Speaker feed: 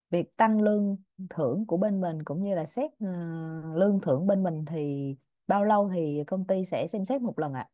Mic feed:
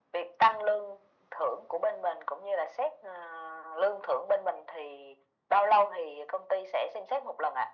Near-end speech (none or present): none